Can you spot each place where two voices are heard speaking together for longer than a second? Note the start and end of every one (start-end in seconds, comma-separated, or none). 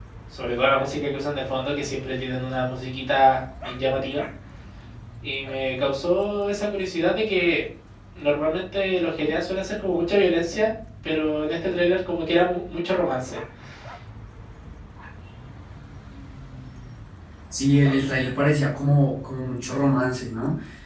none